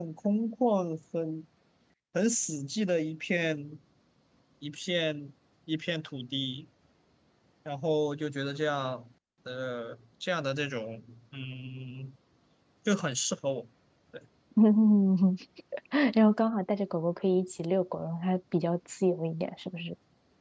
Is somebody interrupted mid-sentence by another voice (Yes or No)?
No